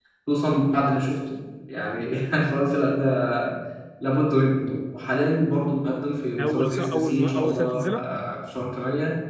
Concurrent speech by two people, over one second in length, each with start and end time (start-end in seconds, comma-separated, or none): 6.4-8.1